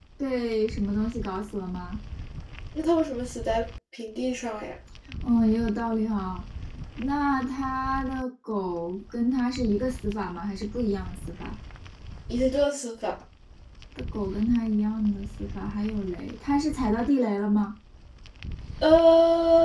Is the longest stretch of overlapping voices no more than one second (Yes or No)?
Yes